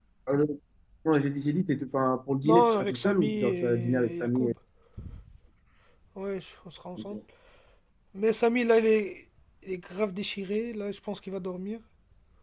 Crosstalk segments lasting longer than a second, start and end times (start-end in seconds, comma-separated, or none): 2.4-4.5